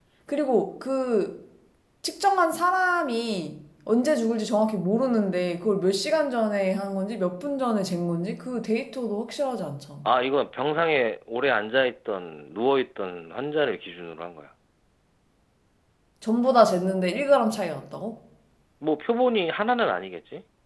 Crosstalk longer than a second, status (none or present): none